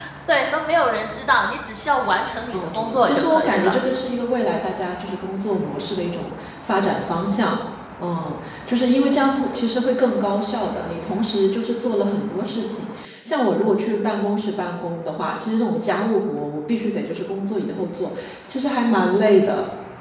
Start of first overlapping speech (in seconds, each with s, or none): 2.5 s